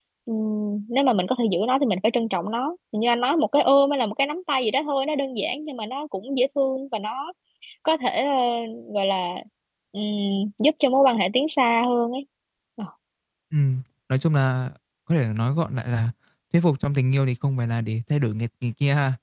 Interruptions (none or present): none